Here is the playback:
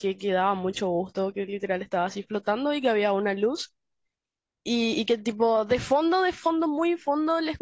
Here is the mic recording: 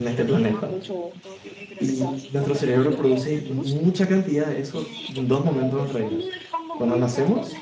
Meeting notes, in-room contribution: present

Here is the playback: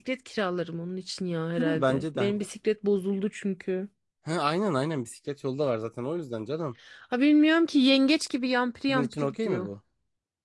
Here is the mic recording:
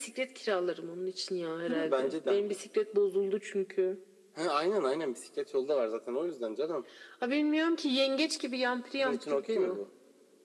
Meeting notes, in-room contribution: none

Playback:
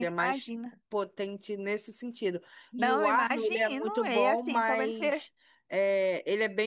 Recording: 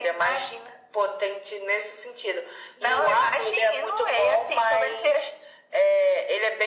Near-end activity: none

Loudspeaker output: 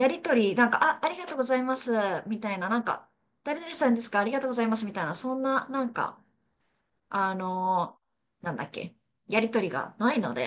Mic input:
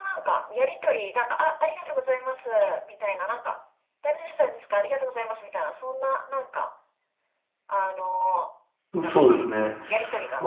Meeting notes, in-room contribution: present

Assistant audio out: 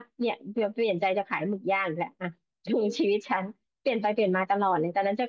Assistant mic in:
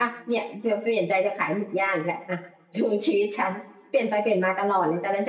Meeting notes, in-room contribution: none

